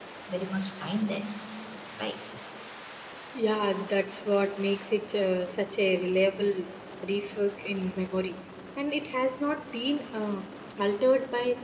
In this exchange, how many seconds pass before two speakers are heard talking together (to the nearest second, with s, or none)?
none